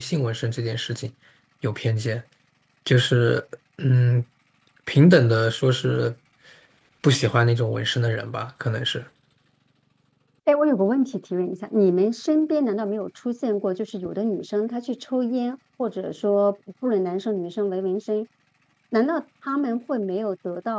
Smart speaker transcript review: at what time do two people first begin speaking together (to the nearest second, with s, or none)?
none